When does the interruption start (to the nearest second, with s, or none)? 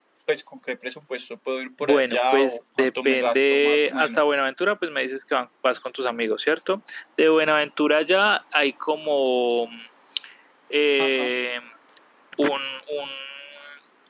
2 s